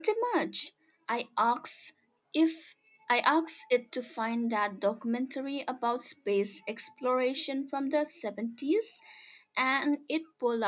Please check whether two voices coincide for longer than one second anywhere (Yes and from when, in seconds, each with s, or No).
No